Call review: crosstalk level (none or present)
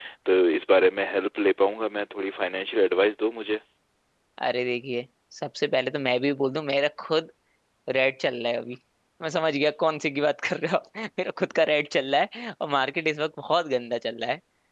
none